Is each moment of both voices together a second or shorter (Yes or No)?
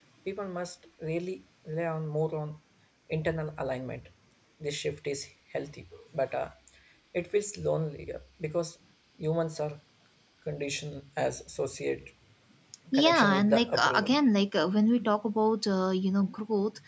No